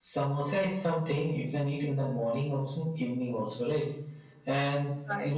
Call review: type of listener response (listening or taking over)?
listening